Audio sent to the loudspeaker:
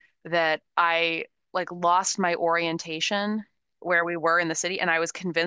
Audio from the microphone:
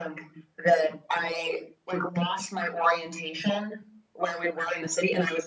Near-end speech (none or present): none